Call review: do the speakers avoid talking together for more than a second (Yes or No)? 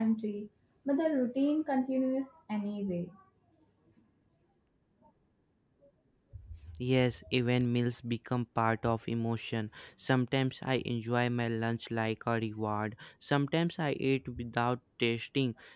Yes